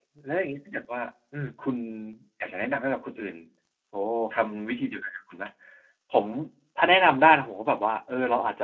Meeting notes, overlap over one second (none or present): none